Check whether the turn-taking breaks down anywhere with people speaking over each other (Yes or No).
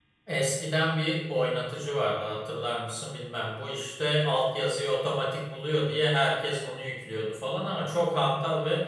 No